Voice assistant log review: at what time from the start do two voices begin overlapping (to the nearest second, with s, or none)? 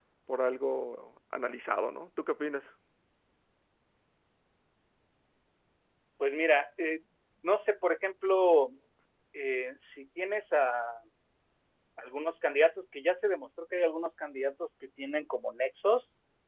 none